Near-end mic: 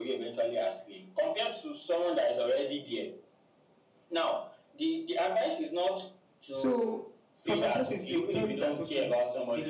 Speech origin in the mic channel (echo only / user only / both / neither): both